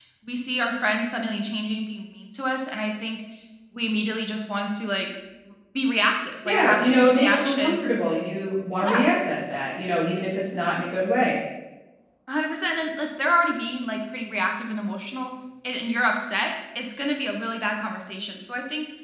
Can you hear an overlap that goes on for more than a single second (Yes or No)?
Yes